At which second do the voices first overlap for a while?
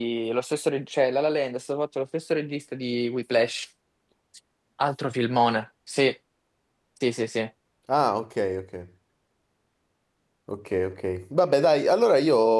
none

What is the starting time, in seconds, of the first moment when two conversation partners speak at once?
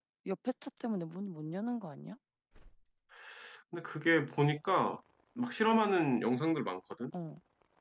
none

